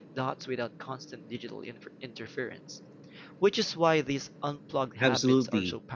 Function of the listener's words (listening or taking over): taking over